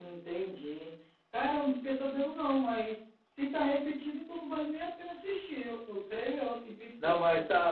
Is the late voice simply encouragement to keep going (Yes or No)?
No